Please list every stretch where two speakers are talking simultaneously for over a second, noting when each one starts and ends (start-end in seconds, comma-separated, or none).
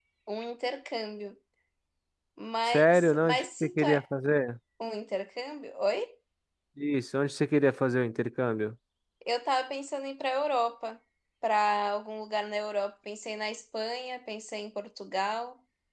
2.6-4.0